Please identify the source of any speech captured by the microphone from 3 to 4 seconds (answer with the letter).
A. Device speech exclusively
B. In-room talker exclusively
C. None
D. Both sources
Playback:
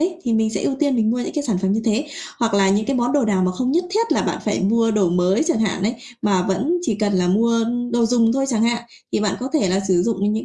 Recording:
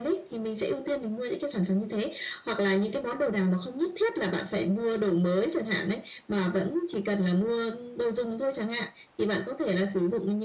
A